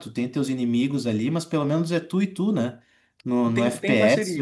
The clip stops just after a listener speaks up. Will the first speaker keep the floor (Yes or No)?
No